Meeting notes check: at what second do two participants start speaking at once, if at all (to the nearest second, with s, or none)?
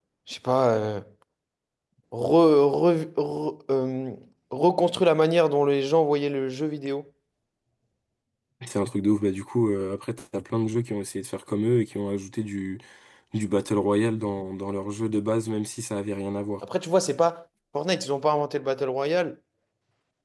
none